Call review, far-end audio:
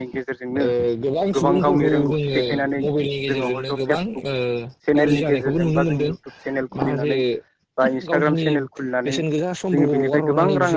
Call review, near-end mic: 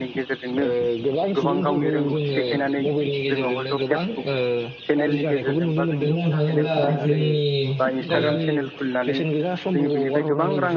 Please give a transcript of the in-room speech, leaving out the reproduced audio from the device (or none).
बुंनो थाङोब्ला जोंनि ओ